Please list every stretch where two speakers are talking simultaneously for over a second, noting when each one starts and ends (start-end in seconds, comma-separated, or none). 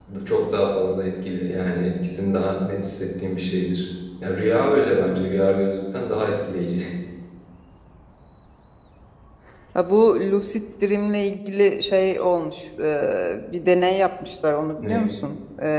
none